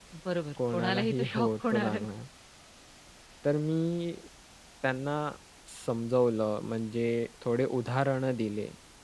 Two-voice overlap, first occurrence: 0.6 s

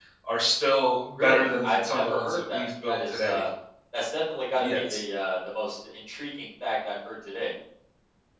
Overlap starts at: 1.2 s

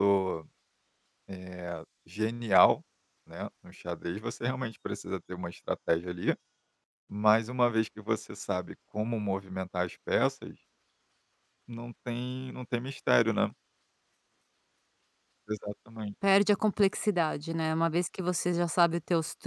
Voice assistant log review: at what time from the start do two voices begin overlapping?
none

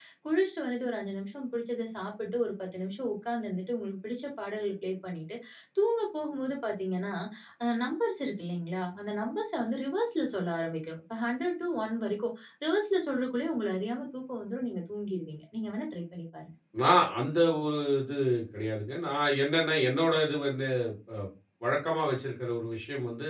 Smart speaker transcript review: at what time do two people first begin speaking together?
none

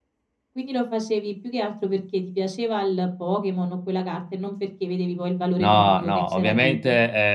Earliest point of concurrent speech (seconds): 5.6 s

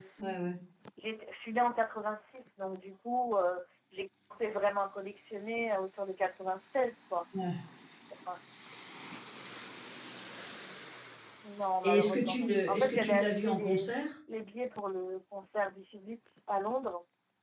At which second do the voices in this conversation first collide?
11.8 s

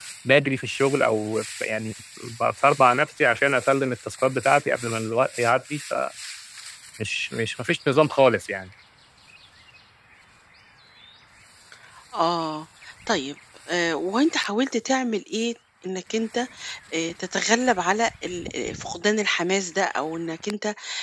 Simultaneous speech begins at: none

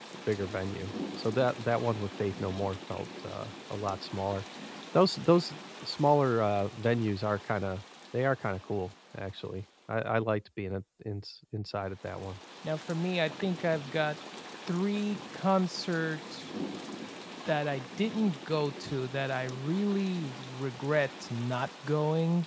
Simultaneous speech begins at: none

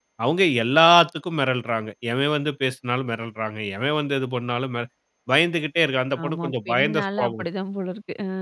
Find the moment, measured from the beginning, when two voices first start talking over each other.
6.2 s

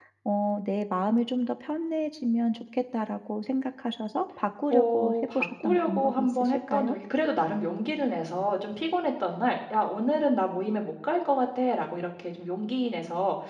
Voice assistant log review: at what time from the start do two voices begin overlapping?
4.7 s

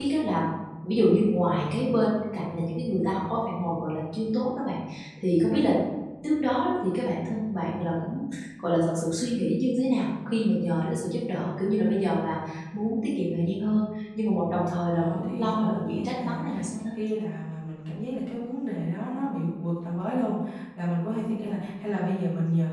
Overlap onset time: 14.9 s

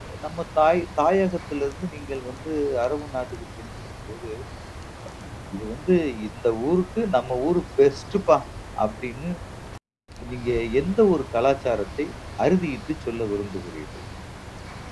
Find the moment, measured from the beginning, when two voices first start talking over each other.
none

